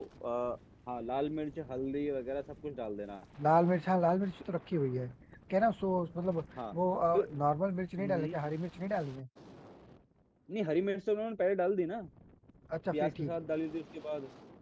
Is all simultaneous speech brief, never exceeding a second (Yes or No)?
Yes